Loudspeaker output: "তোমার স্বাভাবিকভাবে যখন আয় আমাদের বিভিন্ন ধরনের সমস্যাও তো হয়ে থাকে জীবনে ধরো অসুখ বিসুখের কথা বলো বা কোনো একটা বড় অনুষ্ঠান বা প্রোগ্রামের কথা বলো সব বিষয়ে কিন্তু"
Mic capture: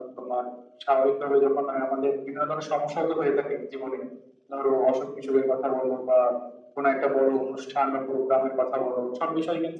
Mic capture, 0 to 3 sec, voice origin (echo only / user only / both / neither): echo only